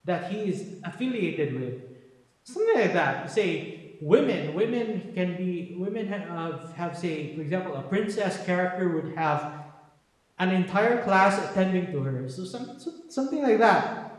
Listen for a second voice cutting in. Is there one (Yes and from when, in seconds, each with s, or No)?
No